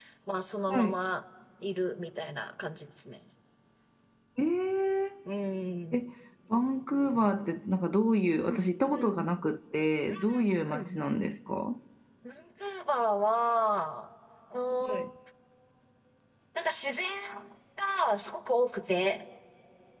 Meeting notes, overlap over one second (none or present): none